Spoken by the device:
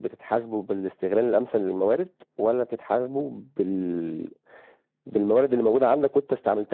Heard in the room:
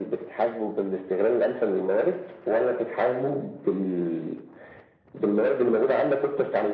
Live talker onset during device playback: none

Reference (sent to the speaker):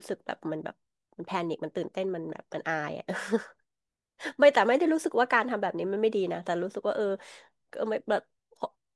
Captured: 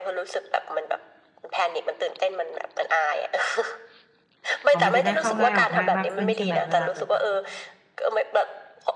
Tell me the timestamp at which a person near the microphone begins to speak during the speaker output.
4.7 s

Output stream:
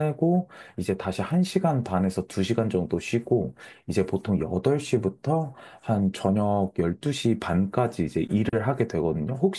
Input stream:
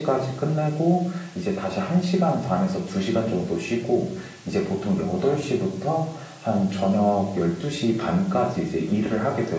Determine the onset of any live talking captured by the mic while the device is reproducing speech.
none

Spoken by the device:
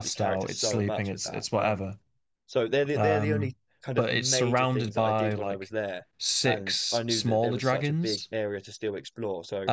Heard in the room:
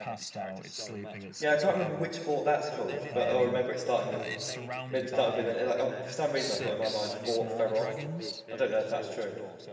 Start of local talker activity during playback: 1.4 s

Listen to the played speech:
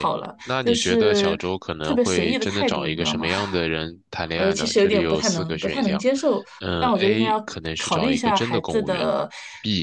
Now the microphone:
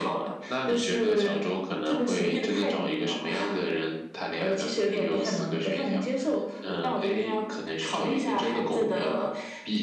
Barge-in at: none

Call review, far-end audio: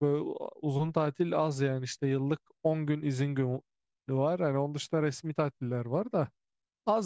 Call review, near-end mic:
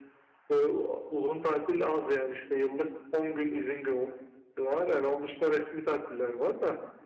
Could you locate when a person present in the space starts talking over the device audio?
none

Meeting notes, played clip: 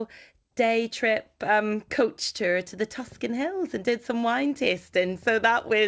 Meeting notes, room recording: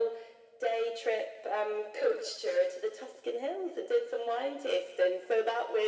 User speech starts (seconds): none

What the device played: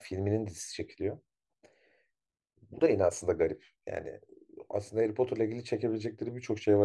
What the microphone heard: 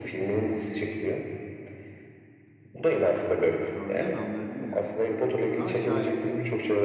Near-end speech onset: 3.7 s

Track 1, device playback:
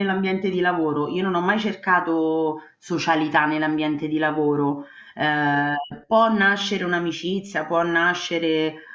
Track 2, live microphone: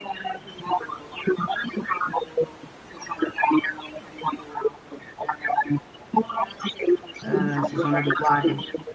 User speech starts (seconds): 7.2 s

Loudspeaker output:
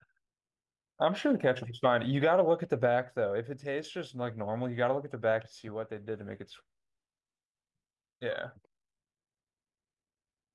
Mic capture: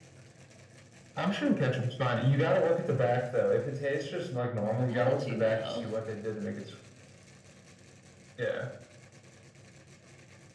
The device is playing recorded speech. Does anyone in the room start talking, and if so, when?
4.9 s

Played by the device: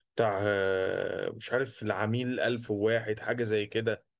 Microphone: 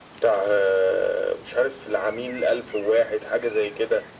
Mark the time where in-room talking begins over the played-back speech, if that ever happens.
none

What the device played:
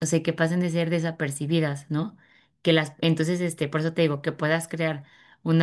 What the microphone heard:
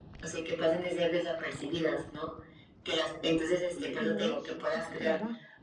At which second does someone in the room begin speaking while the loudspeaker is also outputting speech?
3.7 s

